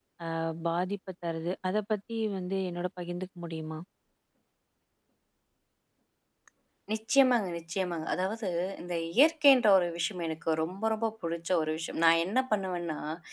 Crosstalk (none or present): none